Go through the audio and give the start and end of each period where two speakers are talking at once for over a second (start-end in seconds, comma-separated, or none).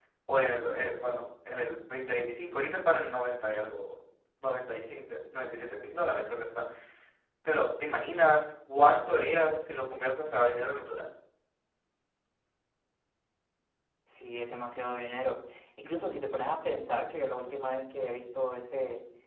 none